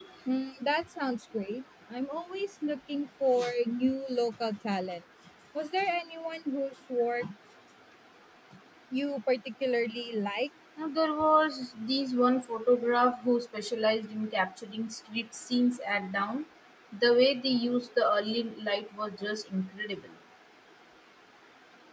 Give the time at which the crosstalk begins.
none

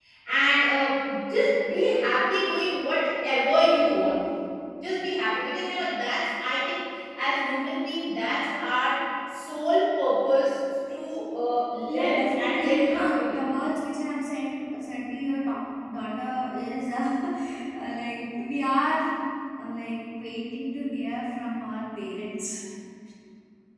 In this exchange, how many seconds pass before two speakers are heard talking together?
11.9 s

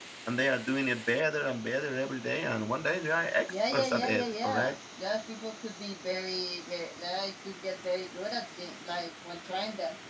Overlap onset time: 3.5 s

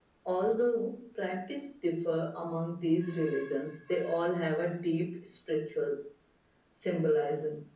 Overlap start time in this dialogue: none

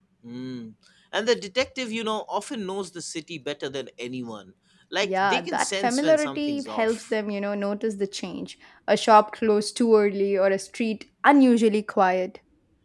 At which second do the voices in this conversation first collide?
5.0 s

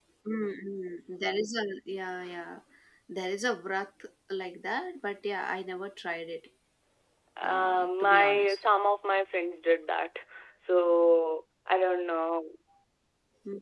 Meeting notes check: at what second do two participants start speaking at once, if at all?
7.4 s

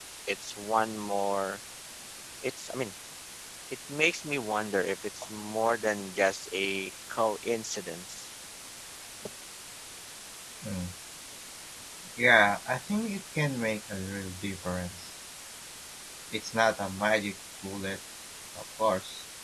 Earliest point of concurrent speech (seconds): none

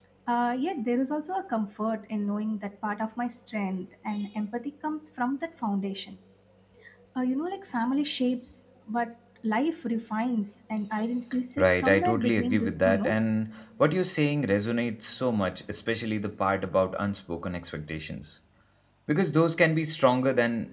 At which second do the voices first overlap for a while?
11.6 s

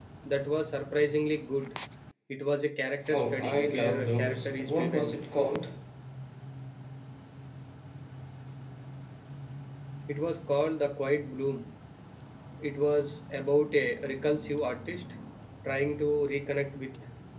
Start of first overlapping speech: 3.1 s

